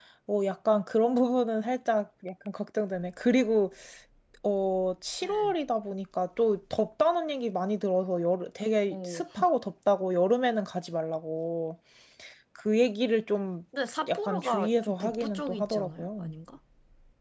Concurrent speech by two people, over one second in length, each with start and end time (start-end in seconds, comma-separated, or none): 14.1-16.4